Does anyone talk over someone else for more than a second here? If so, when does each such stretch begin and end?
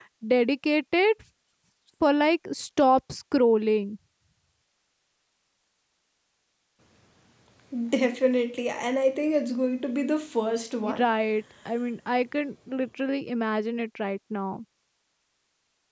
none

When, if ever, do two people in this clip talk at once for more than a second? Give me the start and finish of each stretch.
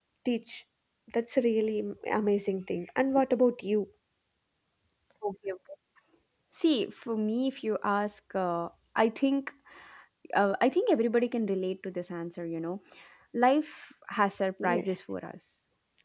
none

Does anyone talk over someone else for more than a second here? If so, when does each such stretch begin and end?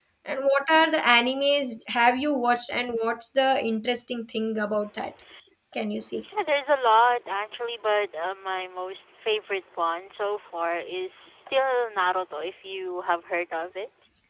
none

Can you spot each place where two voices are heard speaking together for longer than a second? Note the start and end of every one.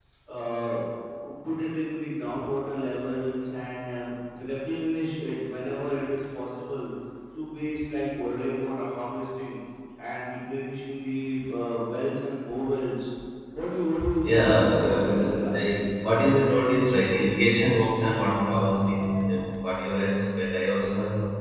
14.2-15.7

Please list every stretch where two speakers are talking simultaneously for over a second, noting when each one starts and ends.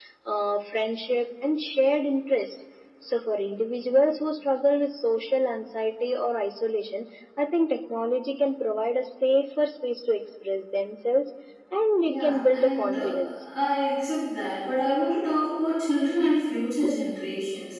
12.0-13.4

